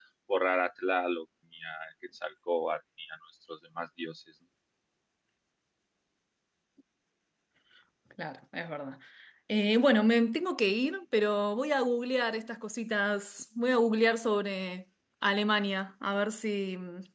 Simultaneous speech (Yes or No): No